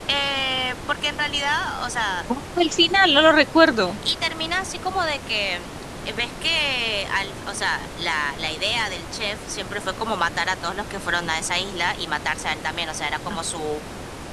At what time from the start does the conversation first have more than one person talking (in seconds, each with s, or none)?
none